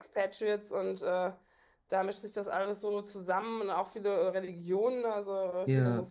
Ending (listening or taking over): listening